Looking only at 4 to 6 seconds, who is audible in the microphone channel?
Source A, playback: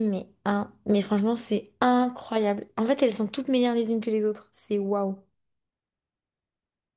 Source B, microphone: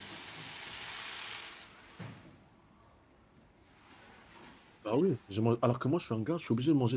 user only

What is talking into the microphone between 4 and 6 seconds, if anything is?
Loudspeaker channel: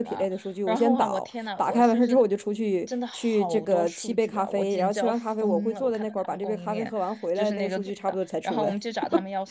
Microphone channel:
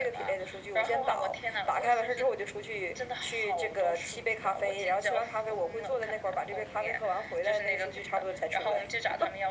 echo only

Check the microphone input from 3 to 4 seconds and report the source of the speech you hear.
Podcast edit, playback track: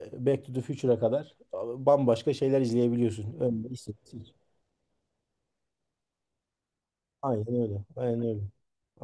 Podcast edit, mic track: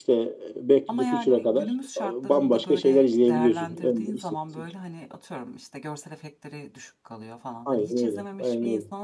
both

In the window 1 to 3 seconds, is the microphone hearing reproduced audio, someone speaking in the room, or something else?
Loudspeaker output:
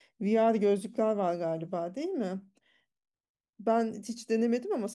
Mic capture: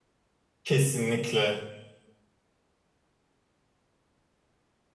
user only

